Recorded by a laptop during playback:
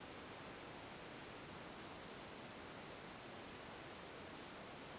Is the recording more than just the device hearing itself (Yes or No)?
No